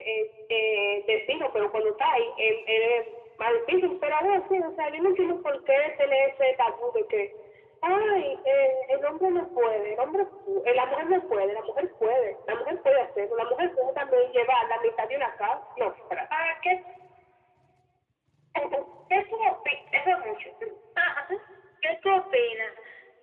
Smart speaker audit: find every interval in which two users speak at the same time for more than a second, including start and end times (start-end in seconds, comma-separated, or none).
none